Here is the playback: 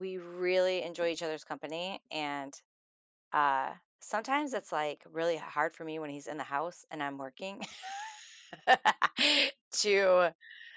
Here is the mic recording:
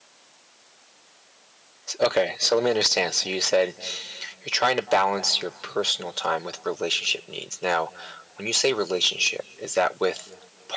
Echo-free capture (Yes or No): Yes